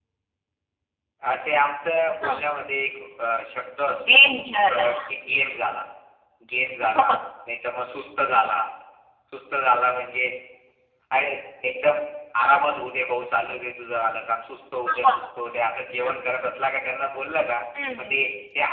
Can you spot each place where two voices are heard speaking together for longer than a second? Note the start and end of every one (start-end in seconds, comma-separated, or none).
none